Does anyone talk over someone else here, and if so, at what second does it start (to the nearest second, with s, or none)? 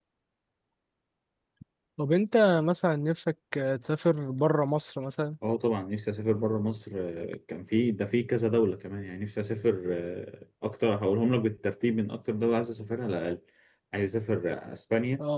none